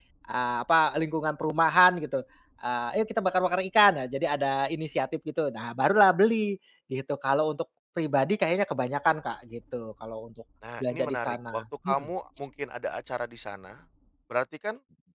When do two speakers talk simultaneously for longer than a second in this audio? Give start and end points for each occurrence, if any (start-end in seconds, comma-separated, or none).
10.8-12.1